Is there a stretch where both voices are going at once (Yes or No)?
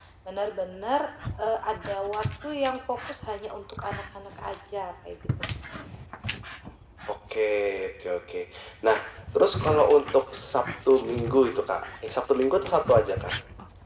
No